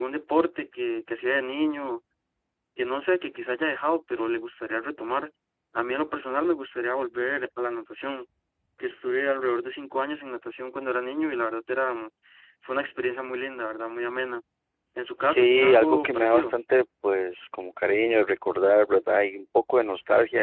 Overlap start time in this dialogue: 15.2 s

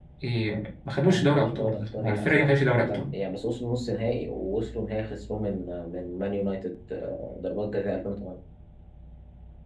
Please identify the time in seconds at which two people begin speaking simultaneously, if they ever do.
1.0 s

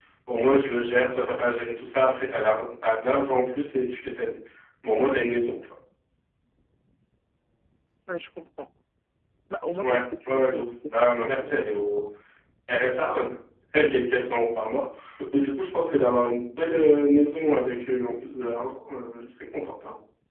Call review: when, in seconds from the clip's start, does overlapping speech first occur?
9.8 s

